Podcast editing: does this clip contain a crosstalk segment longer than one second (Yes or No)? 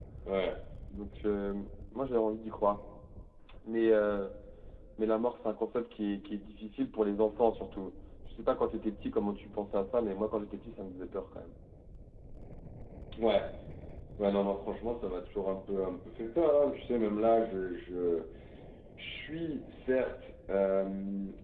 No